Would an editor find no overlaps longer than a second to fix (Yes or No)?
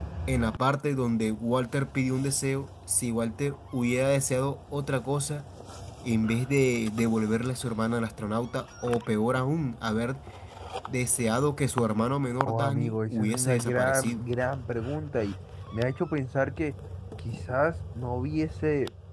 No